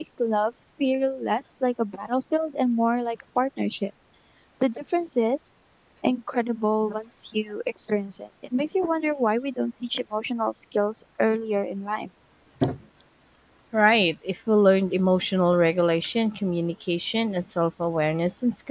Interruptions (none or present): none